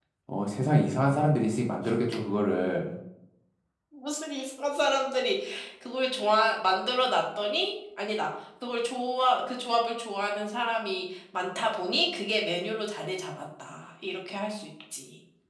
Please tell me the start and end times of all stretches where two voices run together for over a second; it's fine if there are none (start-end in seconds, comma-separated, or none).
none